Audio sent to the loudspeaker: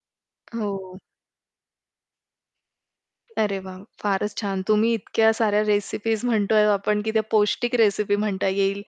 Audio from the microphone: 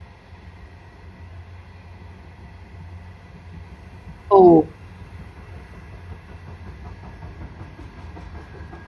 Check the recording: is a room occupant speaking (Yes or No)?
Yes